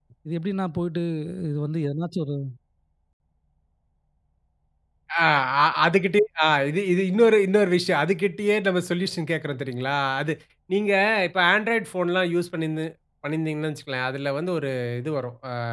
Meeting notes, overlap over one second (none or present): none